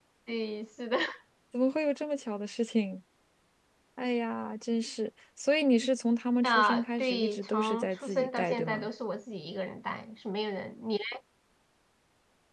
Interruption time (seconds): 6 s

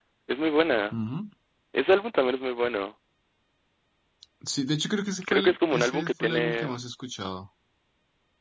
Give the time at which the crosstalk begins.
5 s

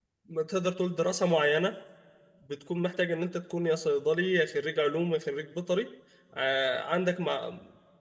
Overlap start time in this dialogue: none

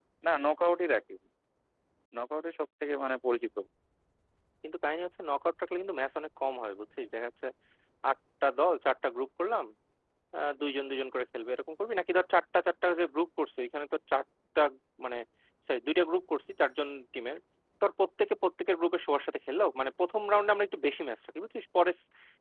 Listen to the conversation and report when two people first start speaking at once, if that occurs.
none

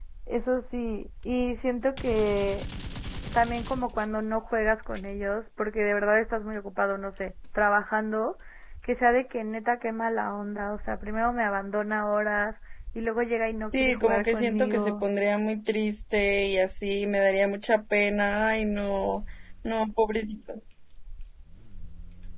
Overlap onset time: 14 s

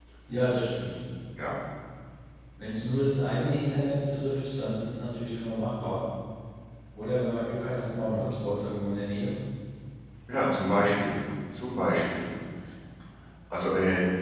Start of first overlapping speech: none

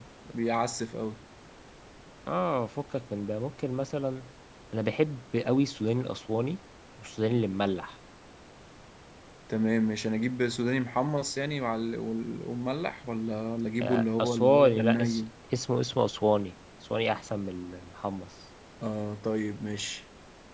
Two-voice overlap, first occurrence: 14 s

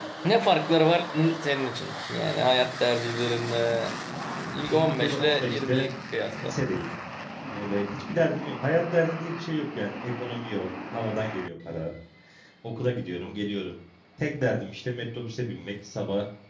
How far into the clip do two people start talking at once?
5 s

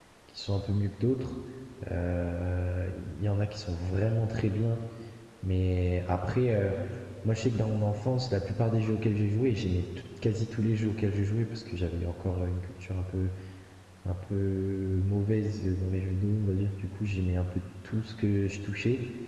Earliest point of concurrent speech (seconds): none

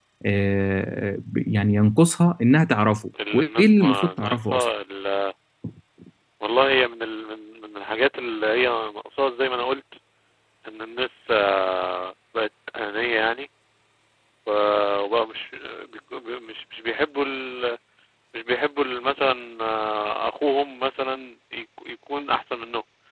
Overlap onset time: 3 s

